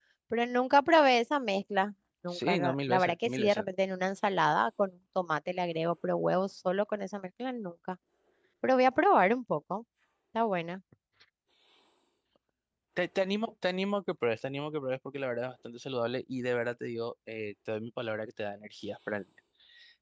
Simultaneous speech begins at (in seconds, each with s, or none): 2.3 s